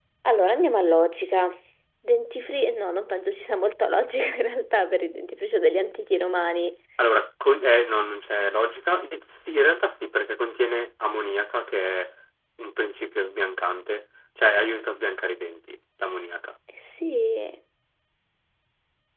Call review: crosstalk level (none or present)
none